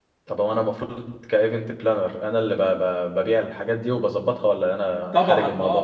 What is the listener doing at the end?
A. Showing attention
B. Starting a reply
B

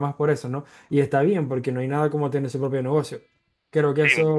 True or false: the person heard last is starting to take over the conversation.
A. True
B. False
B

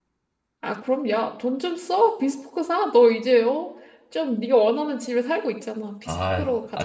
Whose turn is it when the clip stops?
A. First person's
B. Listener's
B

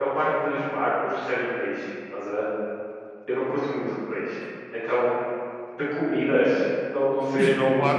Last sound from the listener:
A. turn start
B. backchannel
A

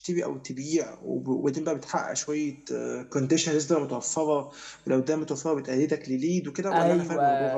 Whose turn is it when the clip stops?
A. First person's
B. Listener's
B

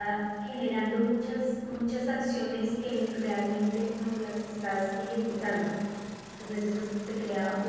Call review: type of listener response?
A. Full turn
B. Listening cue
B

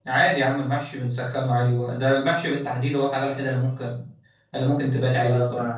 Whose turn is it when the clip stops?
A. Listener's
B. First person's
A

